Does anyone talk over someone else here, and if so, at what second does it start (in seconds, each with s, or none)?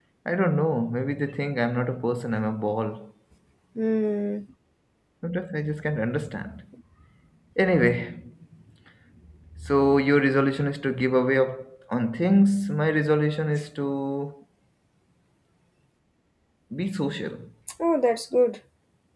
none